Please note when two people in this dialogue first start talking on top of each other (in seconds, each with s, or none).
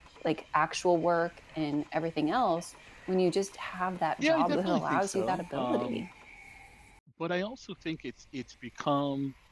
4.2 s